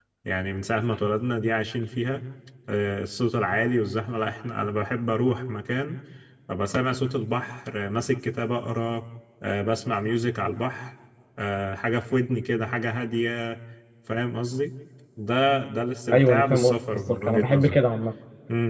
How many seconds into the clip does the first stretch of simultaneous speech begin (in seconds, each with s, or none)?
16.1 s